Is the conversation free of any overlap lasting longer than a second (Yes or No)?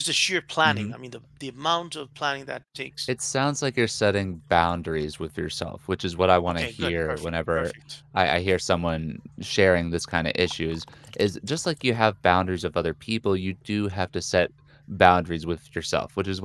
No